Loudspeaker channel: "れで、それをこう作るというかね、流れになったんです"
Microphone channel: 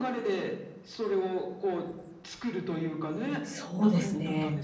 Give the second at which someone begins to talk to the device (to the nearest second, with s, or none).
3 s